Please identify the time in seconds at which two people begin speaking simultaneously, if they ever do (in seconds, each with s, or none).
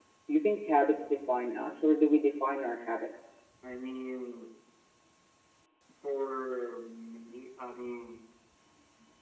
none